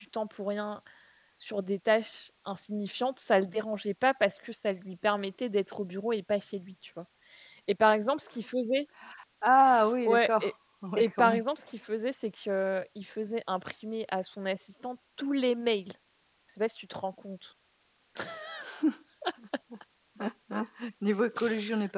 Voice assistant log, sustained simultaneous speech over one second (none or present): none